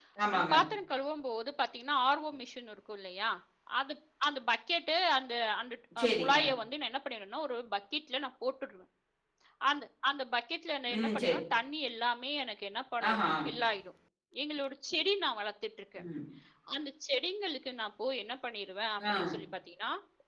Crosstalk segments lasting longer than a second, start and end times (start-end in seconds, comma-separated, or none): none